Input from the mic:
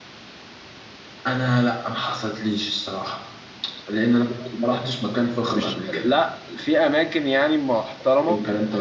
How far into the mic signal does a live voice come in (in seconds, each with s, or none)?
5.5 s